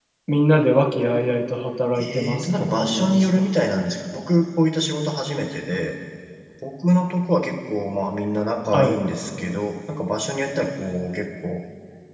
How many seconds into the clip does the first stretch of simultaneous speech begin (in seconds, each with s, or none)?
1.9 s